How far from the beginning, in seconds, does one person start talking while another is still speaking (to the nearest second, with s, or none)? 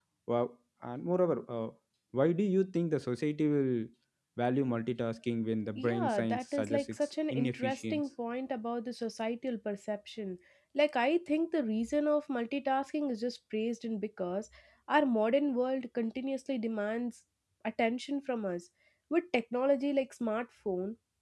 6 s